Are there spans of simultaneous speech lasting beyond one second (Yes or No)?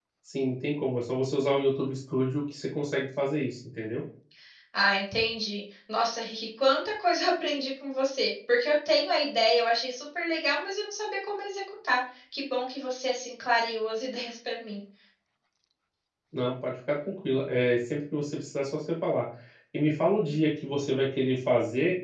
No